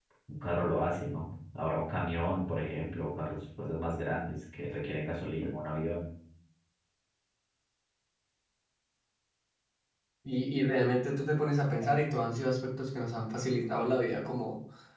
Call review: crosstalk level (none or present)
none